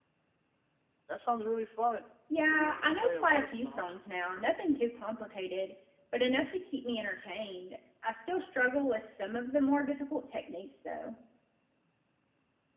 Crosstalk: present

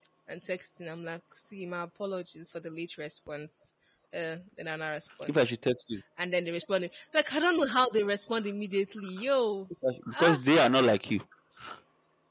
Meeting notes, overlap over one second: none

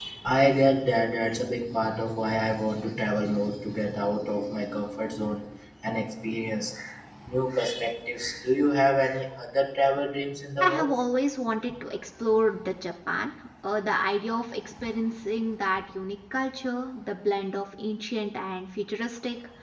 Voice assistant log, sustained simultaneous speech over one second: none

